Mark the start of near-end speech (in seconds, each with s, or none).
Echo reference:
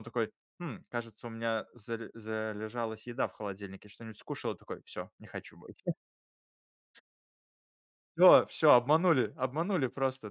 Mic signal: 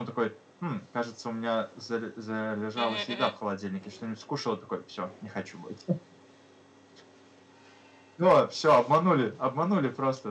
2.8 s